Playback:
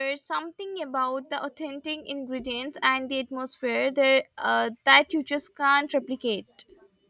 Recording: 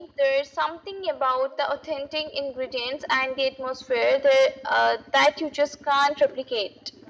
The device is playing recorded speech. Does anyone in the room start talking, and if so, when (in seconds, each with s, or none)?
none